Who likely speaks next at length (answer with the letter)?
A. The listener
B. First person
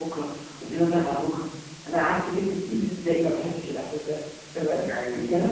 B